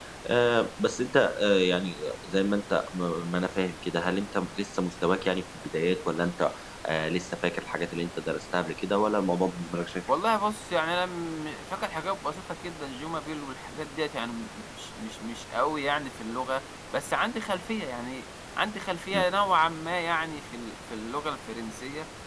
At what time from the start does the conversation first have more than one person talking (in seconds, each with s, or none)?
none